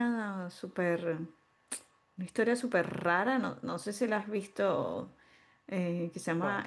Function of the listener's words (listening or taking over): listening